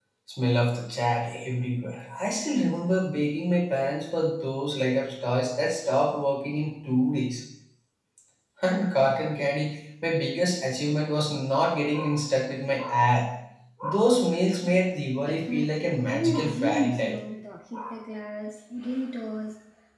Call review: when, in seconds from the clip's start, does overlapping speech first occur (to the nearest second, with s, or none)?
15 s